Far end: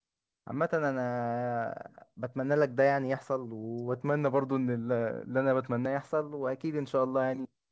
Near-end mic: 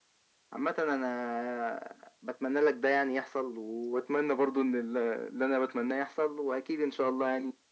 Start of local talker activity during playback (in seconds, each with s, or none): none